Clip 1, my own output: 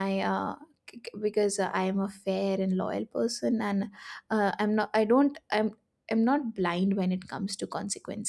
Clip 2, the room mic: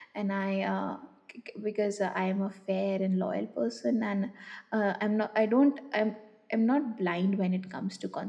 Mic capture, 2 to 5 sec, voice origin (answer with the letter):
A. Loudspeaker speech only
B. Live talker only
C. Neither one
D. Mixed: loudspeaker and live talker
A